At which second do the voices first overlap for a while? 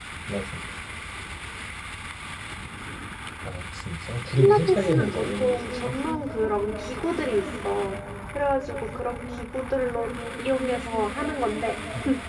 4.4 s

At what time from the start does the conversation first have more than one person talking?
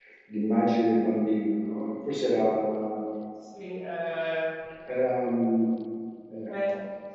none

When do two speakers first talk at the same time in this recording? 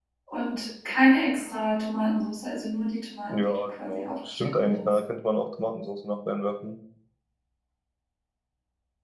3.3 s

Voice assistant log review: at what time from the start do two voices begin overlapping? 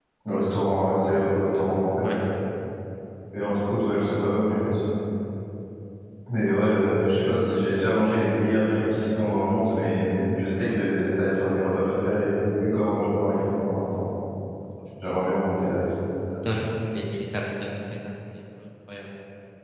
none

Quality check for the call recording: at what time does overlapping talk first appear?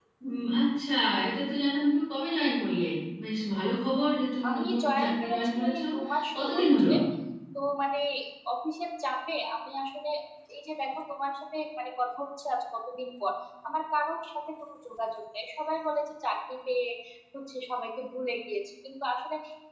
4.4 s

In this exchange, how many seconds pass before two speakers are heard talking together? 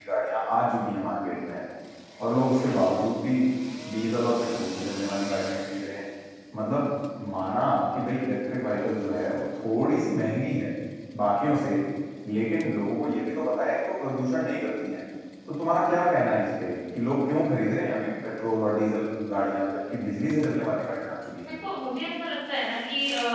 none

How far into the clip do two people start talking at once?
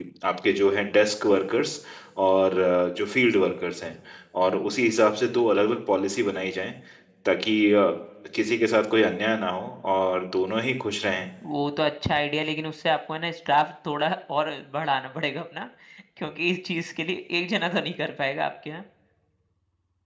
none

